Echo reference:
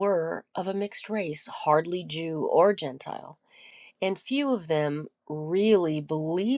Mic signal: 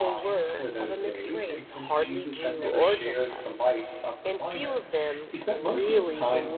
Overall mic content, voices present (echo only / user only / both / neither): both